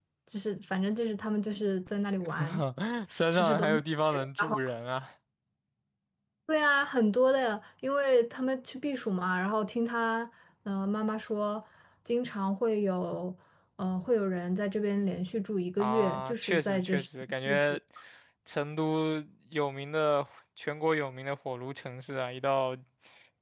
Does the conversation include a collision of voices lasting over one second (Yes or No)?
Yes